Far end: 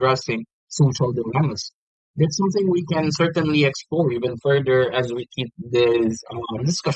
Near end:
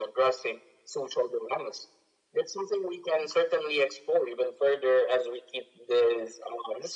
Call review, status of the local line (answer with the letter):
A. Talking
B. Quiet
B